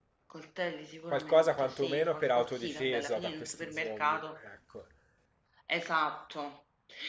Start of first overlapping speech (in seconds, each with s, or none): 1.1 s